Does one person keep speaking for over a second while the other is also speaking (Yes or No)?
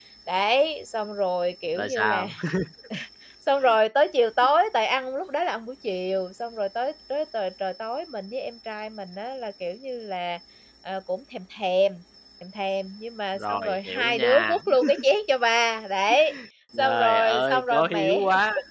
Yes